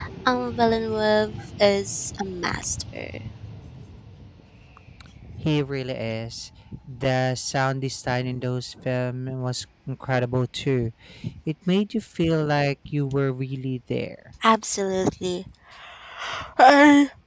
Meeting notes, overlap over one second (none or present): none